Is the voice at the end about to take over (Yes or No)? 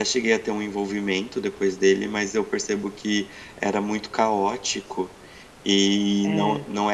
No